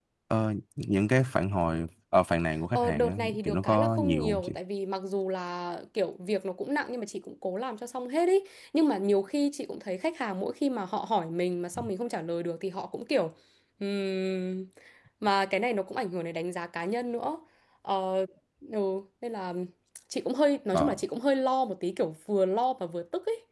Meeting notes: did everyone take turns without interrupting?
No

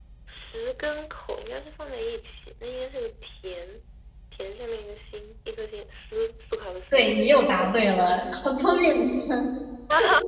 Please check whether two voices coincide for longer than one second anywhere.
No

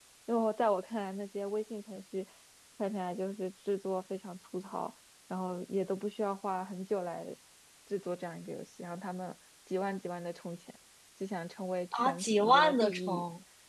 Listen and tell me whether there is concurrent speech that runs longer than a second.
Yes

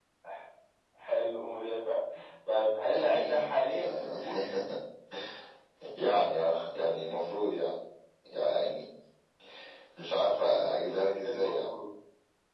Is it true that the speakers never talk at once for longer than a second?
No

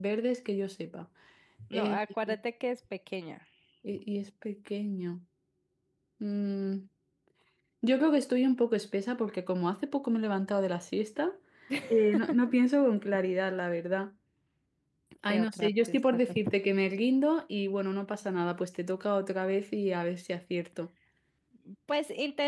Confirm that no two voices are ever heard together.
No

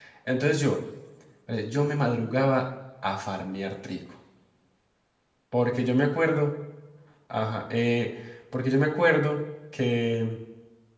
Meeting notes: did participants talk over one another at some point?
No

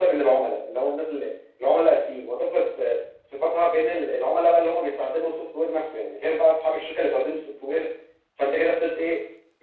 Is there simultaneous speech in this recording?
No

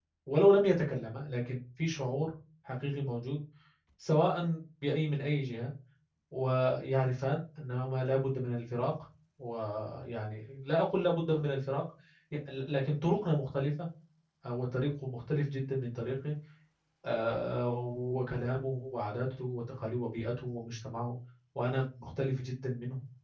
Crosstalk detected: No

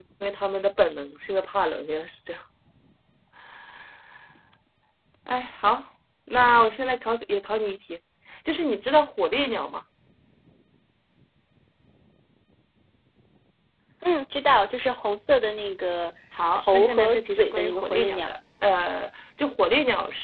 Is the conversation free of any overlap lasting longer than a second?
No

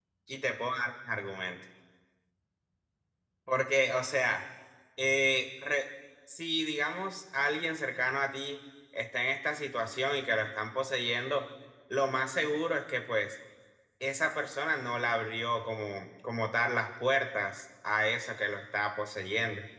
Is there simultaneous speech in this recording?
No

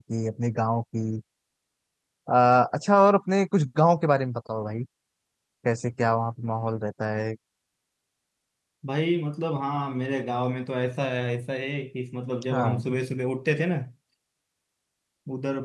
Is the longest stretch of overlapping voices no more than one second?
Yes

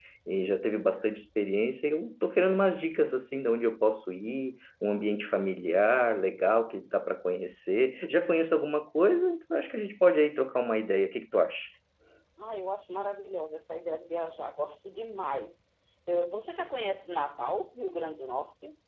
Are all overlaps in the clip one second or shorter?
Yes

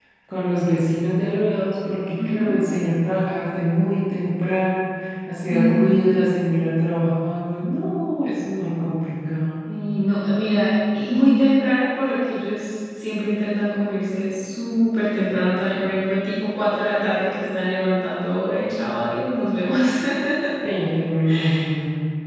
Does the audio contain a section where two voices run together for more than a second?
No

